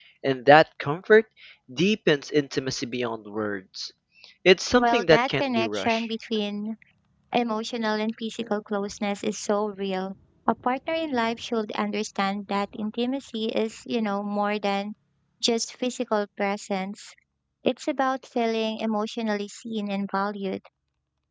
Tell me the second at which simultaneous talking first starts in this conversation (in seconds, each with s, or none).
4.8 s